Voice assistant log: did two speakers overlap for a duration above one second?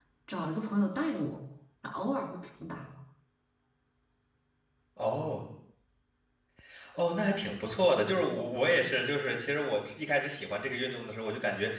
No

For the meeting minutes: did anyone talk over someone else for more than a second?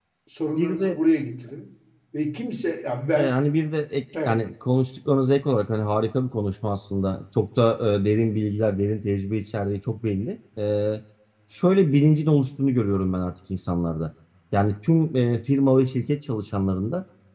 No

